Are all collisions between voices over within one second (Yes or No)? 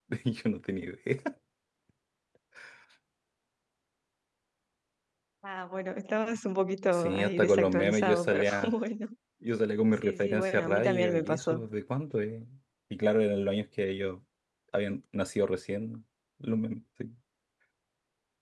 No